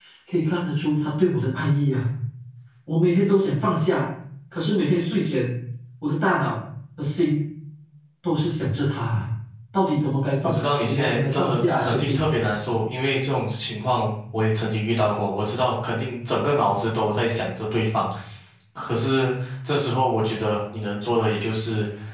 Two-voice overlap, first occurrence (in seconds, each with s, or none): 10.4 s